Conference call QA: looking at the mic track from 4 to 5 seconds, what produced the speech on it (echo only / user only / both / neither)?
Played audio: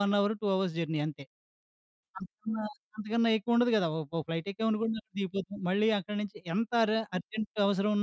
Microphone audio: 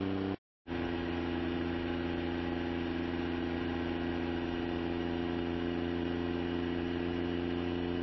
neither